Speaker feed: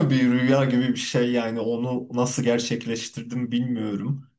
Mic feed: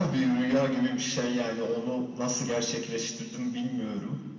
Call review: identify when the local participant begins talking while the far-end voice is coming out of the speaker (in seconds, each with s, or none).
none